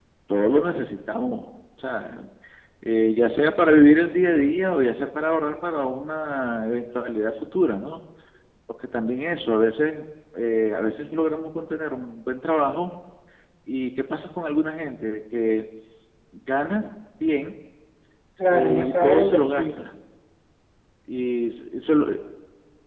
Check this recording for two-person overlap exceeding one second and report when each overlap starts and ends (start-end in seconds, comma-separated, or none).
18.5-19.8